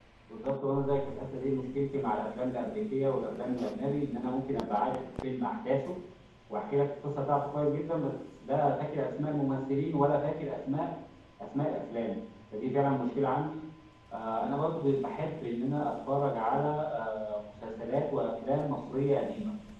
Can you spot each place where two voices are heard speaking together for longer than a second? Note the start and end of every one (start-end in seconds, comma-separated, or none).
none